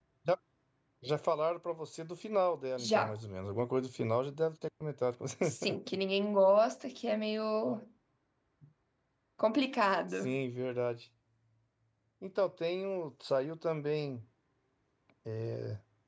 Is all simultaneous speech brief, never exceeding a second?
Yes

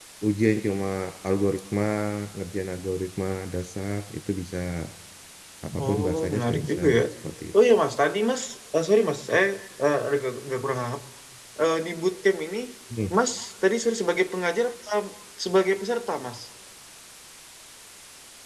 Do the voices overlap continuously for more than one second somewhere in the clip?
Yes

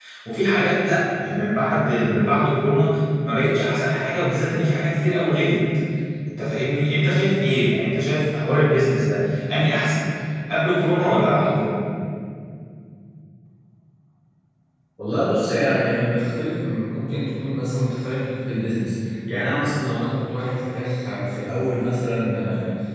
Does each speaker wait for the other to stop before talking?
Yes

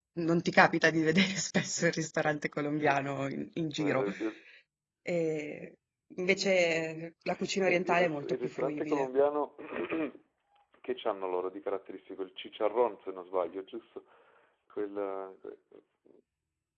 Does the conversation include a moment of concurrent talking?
Yes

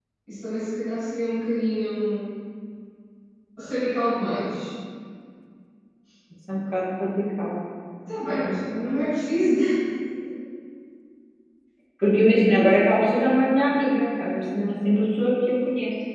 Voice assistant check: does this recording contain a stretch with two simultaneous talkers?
No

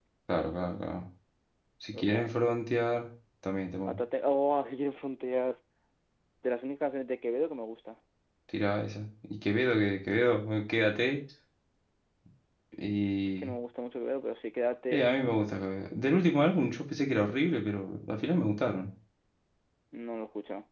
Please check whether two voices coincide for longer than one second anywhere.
No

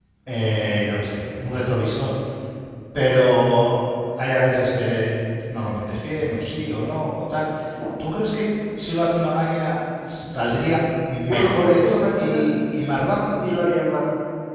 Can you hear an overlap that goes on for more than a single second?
Yes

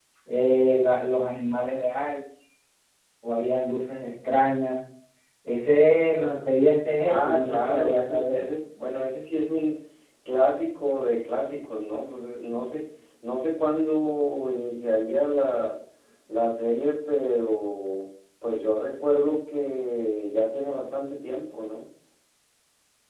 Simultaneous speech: Yes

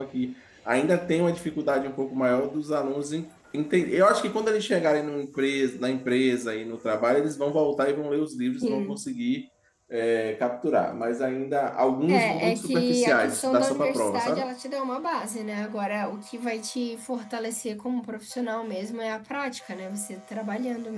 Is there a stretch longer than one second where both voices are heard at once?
Yes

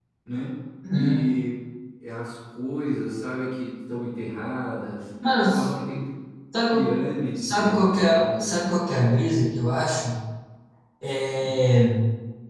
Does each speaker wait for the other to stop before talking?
No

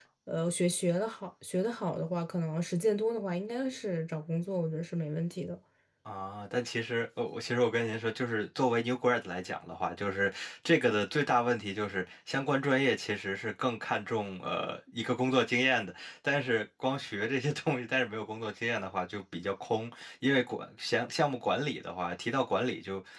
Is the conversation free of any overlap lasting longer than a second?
Yes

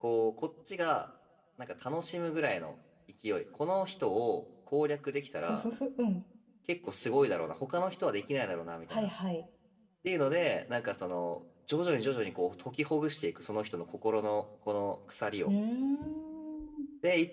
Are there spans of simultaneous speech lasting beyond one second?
No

